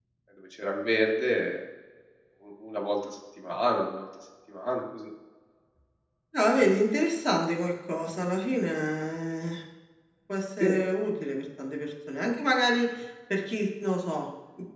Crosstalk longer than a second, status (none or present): none